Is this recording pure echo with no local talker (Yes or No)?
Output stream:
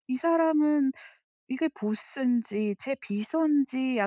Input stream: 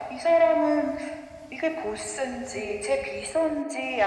Yes